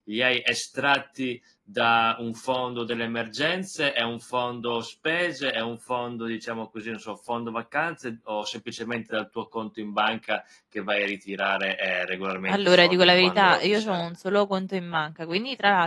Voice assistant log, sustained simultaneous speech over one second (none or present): present